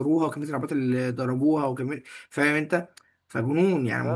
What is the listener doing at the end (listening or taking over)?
taking over